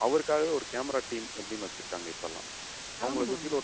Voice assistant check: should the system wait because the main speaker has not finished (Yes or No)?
Yes